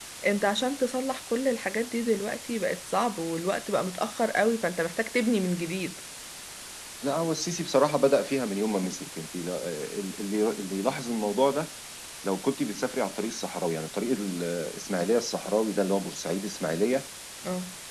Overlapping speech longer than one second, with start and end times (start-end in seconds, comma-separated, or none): none